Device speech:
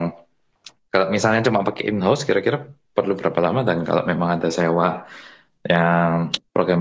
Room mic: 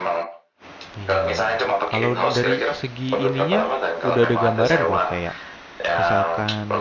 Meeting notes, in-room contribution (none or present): present